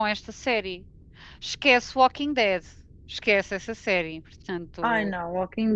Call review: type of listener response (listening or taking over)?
taking over